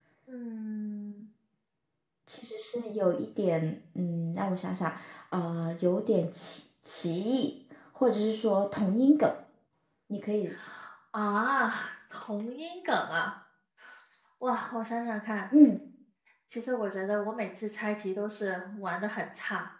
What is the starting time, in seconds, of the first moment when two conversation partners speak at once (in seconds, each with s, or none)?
none